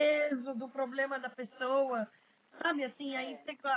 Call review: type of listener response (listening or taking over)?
listening